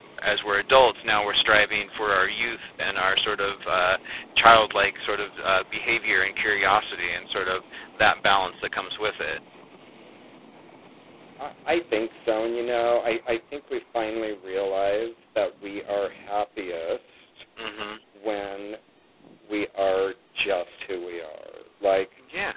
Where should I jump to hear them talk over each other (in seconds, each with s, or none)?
none